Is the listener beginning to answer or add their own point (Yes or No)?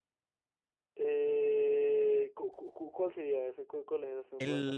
Yes